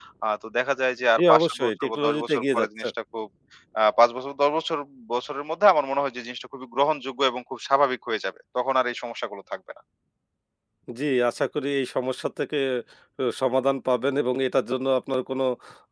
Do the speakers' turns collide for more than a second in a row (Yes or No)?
Yes